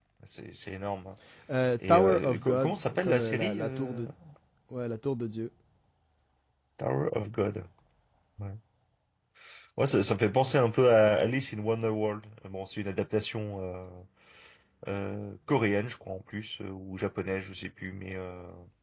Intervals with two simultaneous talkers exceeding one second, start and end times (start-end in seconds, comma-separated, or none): 1.9-4.0